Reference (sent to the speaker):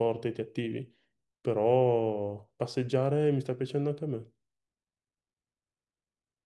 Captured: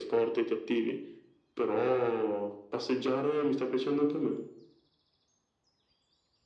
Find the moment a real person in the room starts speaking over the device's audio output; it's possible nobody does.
none

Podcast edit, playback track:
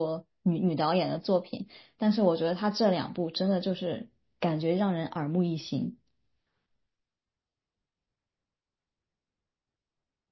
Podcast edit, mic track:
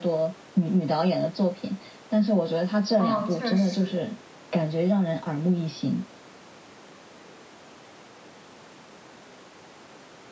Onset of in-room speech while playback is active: 3.0 s

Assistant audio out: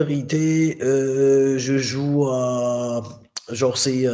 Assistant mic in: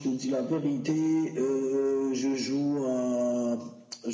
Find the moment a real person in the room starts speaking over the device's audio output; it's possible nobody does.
none

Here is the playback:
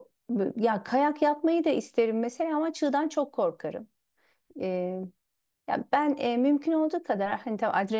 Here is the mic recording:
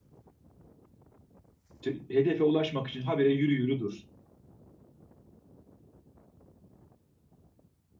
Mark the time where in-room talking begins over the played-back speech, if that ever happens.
1.8 s

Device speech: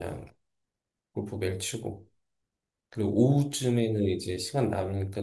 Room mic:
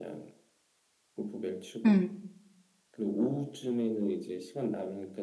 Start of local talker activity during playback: 1.9 s

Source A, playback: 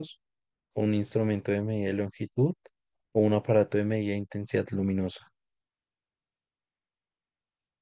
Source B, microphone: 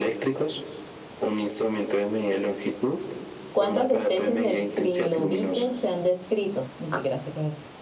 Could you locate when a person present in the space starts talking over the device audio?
3.5 s

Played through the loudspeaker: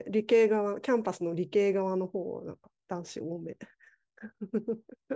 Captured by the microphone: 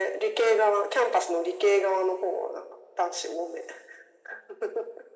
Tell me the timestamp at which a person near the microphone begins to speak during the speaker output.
none

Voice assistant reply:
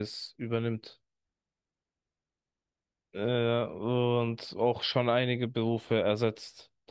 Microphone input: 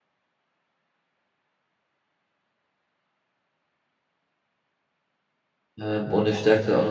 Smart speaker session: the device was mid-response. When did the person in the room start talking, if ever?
5.8 s

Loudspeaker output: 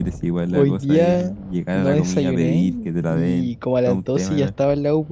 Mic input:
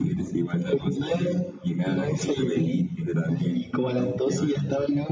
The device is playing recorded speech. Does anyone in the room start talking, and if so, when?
none

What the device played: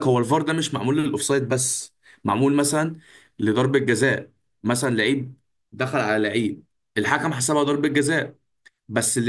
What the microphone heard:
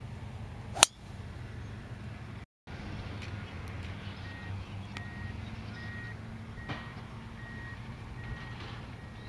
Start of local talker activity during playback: none

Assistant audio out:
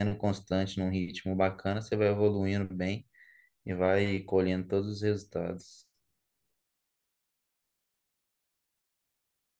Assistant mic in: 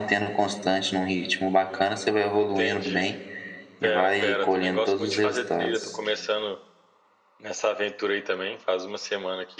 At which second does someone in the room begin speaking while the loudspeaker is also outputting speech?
2.3 s

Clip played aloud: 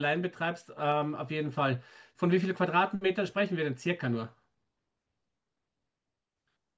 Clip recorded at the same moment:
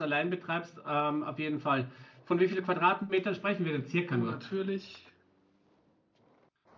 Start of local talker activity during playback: 4.1 s

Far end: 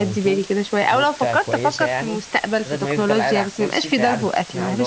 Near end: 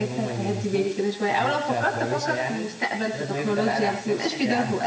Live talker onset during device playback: none

